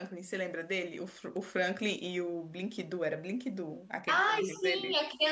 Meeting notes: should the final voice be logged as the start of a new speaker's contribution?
Yes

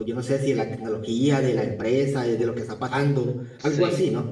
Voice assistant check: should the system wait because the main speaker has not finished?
No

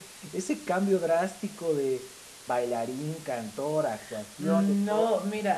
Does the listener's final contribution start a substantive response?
Yes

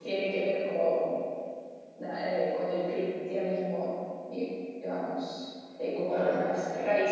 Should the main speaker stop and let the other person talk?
No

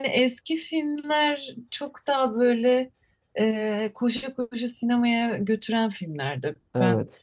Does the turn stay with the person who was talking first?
Yes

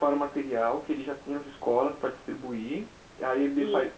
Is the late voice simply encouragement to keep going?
Yes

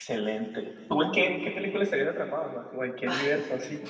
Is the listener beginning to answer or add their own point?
Yes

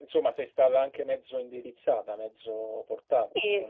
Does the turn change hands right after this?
Yes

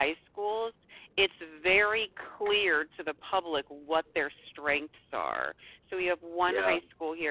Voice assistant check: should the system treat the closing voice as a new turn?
No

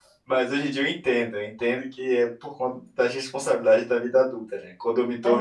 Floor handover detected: No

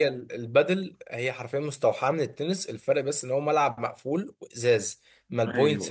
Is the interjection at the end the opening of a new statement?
No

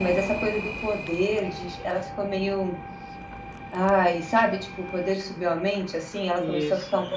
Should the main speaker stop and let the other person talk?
No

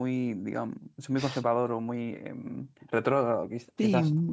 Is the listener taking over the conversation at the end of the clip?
Yes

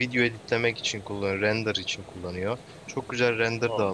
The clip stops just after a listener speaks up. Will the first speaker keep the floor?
Yes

